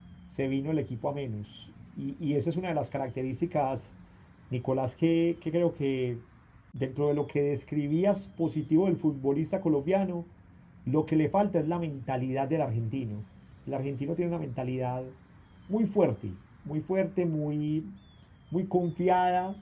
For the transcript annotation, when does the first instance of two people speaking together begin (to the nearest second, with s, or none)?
none